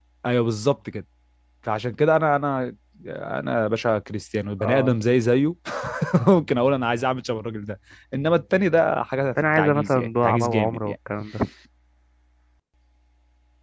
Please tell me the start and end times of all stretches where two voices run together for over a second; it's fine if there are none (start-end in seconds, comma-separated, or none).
9.6-10.9